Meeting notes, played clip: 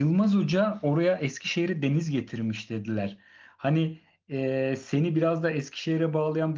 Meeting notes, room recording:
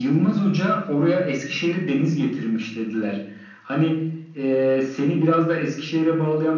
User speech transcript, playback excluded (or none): none